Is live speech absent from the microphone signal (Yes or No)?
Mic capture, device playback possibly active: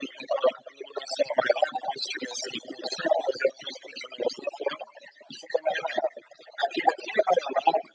Yes